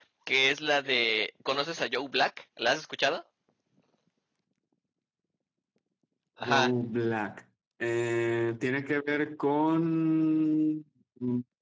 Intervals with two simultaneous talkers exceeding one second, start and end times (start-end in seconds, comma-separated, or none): none